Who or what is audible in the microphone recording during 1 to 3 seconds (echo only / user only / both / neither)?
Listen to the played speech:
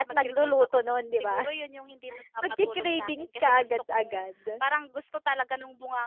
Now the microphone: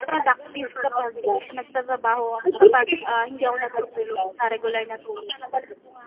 both